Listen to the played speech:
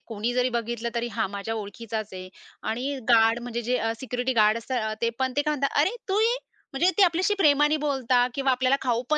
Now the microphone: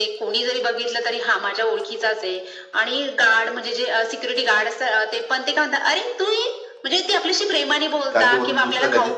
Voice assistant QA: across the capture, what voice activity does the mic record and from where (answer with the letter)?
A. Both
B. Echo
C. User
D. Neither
A